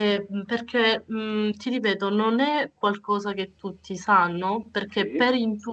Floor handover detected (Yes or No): No